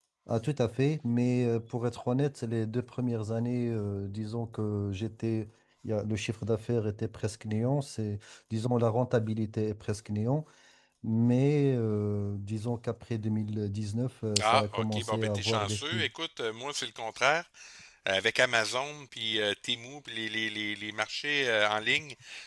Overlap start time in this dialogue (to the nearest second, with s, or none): 14 s